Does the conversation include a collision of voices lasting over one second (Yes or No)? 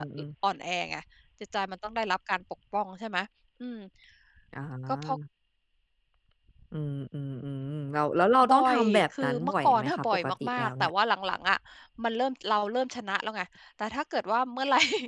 Yes